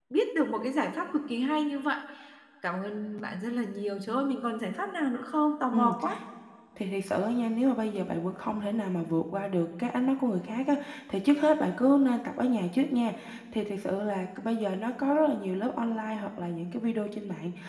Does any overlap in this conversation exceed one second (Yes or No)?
No